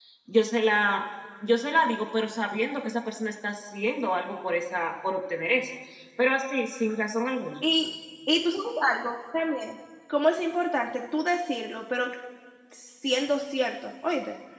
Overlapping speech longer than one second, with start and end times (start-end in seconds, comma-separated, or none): none